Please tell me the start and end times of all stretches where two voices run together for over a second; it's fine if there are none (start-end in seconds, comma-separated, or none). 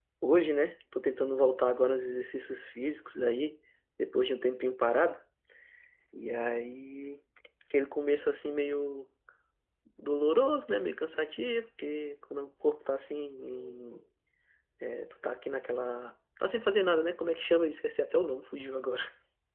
none